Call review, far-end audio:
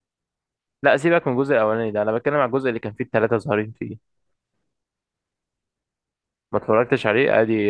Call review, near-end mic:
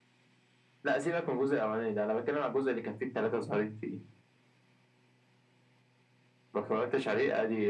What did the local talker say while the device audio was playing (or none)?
none